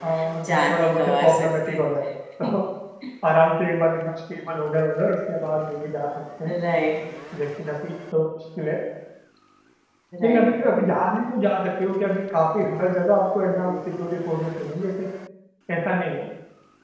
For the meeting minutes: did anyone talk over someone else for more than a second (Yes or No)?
Yes